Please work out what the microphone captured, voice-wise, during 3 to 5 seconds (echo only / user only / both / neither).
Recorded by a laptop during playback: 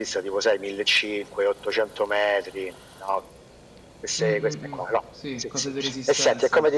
both